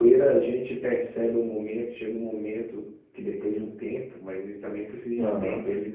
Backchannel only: Yes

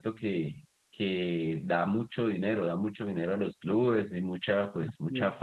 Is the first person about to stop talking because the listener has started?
No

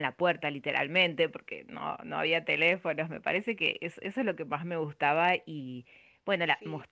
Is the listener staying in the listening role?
Yes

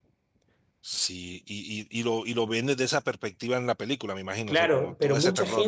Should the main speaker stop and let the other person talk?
Yes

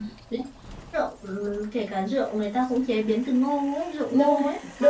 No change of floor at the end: No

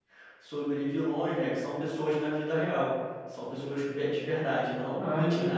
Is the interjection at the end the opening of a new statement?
Yes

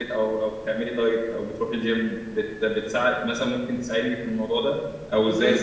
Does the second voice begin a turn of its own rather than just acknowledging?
No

